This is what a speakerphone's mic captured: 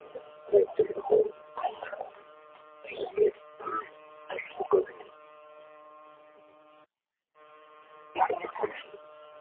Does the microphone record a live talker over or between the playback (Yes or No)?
No